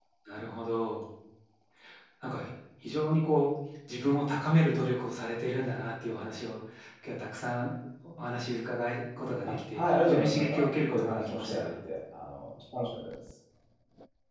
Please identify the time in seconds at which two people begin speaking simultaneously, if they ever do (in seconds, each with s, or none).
9.7 s